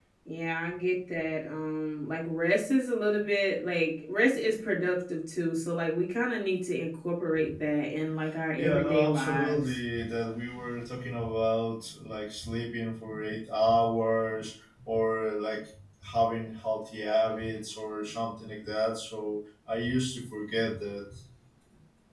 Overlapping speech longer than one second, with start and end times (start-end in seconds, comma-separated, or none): 8.5-9.7